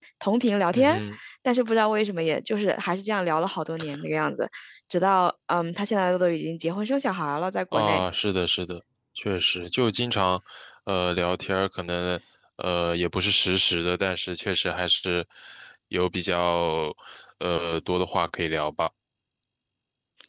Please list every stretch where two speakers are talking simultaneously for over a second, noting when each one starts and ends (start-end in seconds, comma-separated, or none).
none